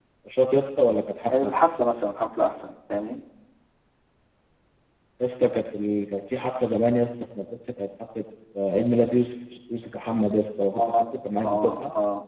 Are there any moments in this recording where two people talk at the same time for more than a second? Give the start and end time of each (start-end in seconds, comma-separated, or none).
none